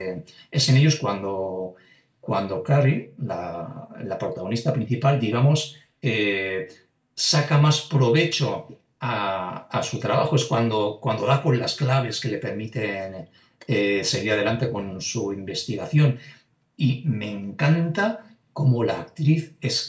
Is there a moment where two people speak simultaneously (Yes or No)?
No